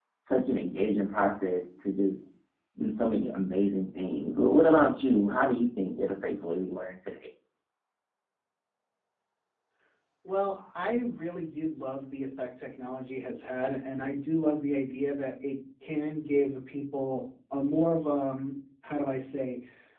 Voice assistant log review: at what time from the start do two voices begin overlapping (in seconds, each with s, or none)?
none